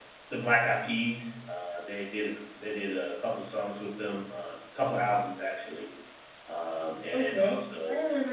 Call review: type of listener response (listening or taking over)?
taking over